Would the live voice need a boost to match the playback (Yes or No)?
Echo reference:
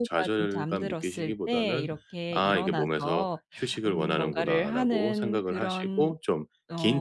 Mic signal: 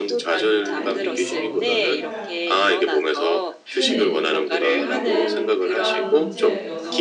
Yes